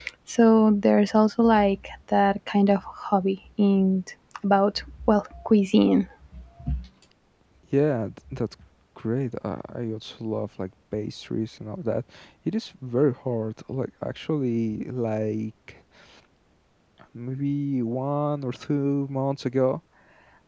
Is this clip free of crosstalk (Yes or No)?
Yes